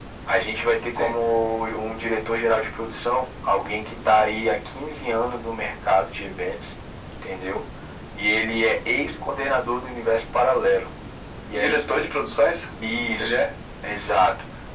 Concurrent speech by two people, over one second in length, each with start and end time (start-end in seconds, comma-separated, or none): none